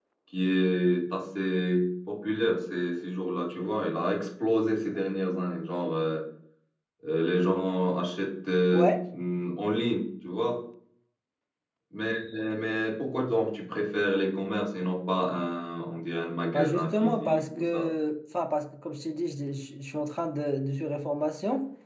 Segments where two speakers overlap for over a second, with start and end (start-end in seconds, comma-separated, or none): 16.5-17.9